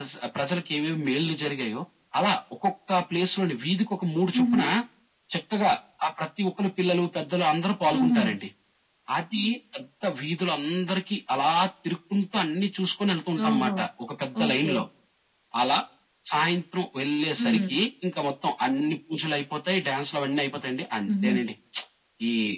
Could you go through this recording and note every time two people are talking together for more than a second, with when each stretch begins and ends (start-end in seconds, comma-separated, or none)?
none